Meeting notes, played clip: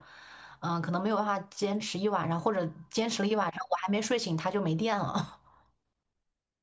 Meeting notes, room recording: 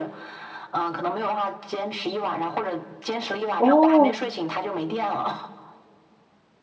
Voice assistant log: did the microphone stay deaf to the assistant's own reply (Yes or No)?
No